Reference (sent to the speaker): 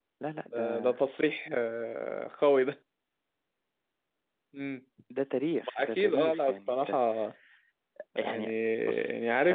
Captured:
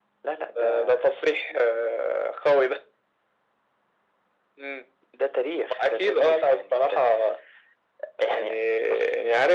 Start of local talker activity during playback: none

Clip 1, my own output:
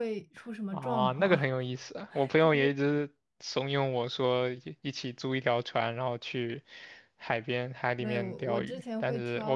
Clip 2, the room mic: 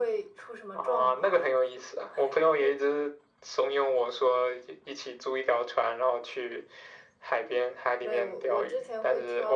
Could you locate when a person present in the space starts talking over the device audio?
none

